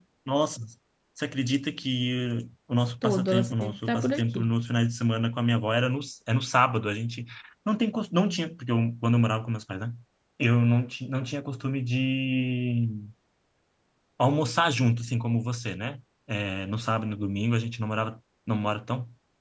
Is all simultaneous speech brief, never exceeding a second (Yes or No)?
No